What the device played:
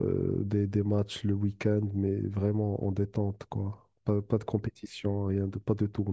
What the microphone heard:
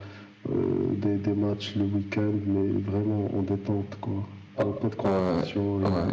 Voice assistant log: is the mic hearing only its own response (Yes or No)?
No